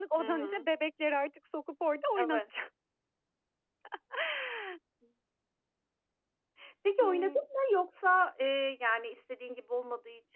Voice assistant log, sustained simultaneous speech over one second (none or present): none